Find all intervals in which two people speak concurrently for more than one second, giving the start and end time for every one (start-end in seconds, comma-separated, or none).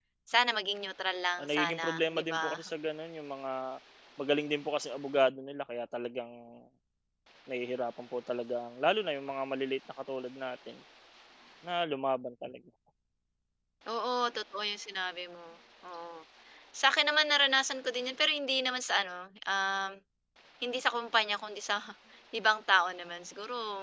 1.4-2.7